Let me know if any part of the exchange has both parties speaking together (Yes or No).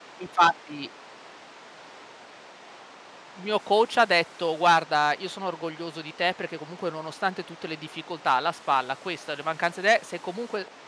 No